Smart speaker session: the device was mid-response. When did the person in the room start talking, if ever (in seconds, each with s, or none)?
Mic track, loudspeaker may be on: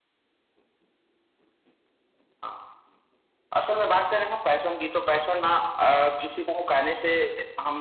none